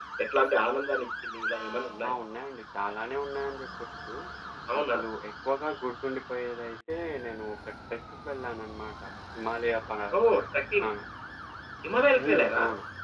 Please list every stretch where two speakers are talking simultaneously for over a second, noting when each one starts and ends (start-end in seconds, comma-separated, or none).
none